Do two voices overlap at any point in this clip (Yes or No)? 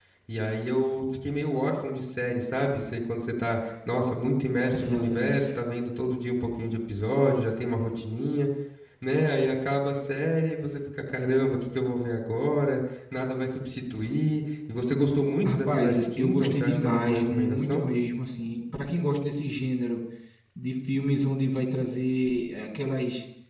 Yes